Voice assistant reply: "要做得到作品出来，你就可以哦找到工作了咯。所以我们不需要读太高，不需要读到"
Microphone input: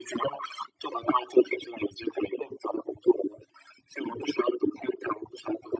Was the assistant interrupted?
No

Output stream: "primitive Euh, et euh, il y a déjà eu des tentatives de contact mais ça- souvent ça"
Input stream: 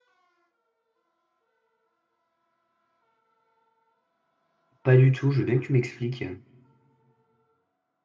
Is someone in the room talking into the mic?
Yes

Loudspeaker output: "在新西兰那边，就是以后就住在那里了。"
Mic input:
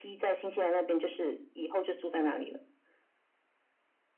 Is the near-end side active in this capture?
No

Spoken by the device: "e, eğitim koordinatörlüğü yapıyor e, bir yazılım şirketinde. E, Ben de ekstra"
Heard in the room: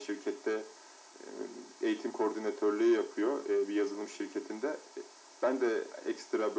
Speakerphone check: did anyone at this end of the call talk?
No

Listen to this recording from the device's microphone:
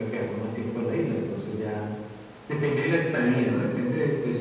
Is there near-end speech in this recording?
No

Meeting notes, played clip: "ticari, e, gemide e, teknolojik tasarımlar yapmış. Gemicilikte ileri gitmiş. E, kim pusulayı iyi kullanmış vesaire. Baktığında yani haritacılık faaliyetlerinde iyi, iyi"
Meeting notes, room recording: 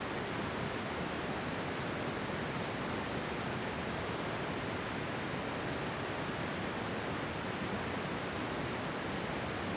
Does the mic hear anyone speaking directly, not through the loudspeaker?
No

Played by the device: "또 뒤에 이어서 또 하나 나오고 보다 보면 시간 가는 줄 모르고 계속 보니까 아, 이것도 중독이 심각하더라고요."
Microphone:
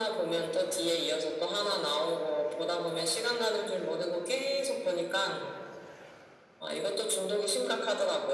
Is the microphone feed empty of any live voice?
Yes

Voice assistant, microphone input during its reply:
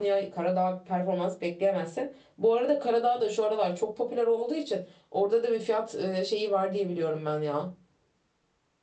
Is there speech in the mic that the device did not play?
Yes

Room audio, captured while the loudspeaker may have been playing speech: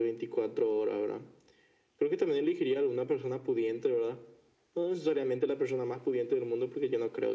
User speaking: No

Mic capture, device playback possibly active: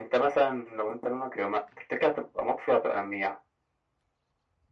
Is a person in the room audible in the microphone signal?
No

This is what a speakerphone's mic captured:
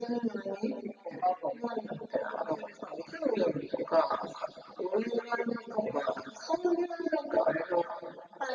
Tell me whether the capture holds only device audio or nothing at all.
Yes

